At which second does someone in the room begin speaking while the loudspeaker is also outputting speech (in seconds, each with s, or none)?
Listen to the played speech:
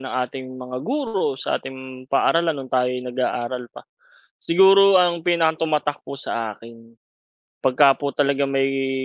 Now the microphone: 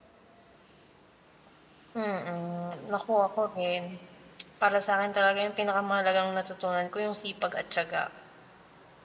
1.9 s